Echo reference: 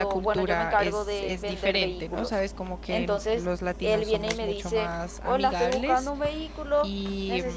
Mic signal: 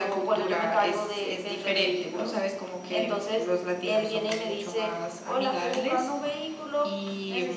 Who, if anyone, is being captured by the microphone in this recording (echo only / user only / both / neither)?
echo only